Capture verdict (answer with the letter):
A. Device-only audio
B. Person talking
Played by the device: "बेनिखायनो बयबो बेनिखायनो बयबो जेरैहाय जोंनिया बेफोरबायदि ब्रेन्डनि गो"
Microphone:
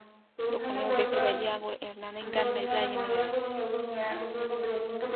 B